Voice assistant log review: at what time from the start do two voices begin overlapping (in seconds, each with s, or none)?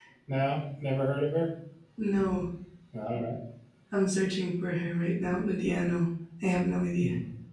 none